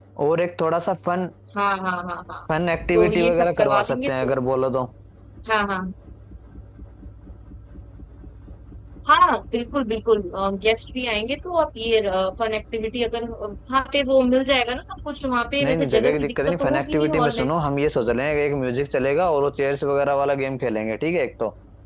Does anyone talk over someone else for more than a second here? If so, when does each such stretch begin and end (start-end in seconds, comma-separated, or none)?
2.9-4.3, 15.6-17.5